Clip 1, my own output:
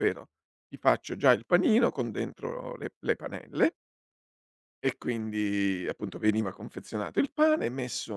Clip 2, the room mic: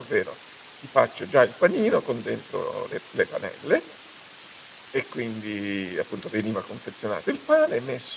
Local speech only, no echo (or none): none